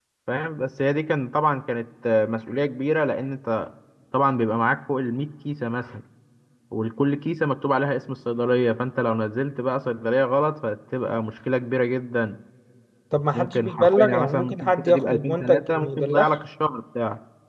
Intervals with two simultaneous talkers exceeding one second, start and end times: 13.3-16.3

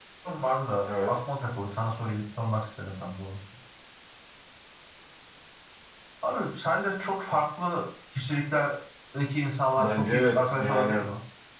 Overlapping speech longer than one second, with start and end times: 9.8-11.1

